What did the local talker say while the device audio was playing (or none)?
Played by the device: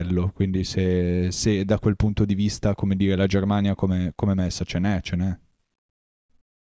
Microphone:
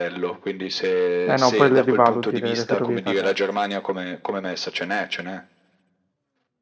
Eh no, poi le rivaluti le, le ferrovie italiane.